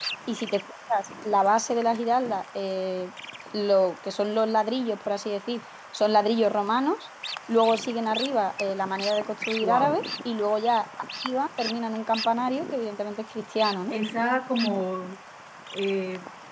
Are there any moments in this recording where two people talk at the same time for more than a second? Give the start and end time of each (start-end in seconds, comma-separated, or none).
none